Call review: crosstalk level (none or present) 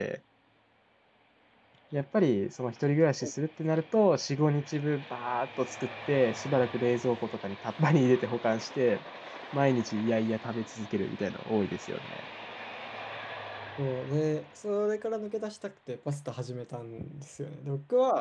none